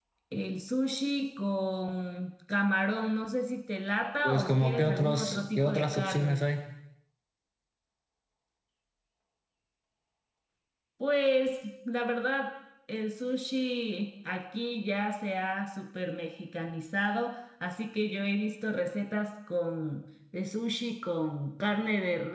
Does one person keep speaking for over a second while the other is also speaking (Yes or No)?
Yes